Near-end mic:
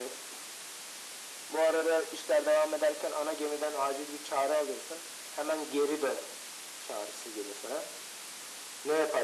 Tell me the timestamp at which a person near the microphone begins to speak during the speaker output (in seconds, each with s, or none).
none